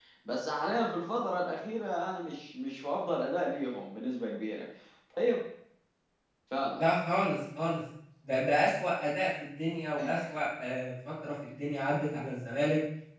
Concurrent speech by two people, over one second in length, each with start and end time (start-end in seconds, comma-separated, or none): none